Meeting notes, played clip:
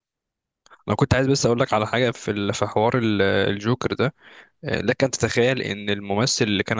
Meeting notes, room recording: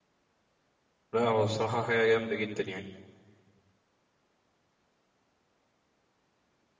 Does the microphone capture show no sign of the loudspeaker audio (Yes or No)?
Yes